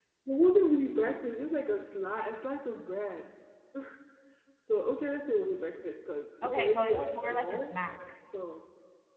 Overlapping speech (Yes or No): Yes